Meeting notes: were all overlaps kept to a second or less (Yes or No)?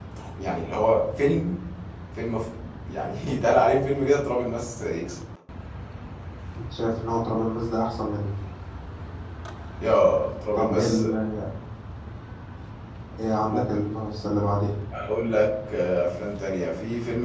Yes